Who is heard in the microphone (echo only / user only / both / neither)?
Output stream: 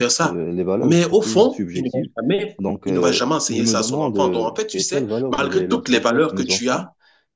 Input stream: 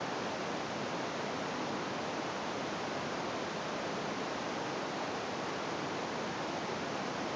neither